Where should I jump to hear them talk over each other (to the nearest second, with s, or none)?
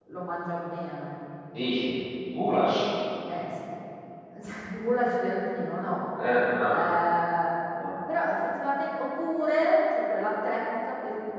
none